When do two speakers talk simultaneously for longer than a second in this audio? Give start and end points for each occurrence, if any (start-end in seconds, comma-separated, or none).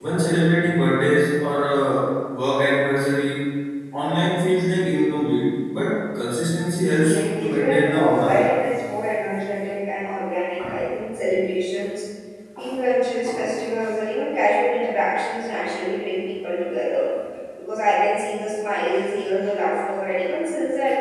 6.8-8.5